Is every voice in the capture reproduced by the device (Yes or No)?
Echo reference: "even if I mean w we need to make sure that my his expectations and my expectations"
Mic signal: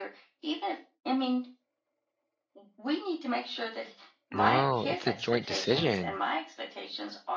No